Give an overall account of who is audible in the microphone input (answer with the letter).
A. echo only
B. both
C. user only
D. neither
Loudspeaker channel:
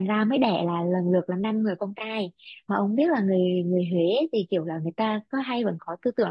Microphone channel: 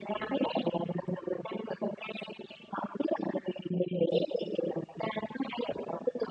A